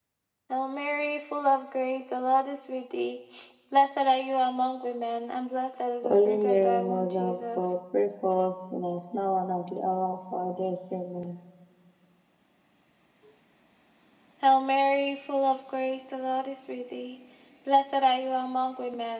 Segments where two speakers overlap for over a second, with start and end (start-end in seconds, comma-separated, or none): 6.0-7.6